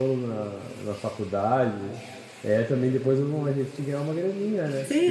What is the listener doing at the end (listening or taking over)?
taking over